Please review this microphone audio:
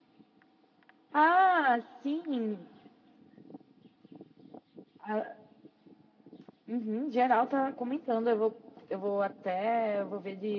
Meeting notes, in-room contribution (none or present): none